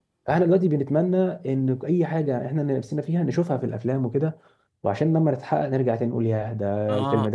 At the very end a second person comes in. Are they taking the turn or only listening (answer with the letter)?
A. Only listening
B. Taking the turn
B